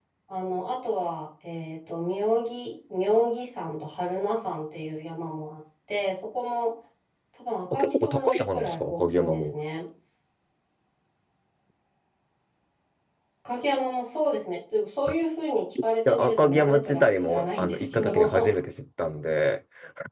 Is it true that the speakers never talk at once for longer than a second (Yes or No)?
No